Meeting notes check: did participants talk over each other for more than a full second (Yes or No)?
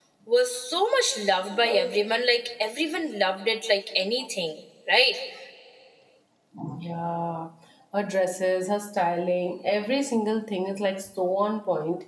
No